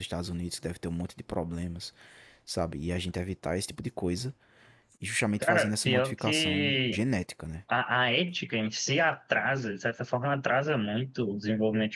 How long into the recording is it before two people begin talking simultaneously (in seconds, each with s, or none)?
5.4 s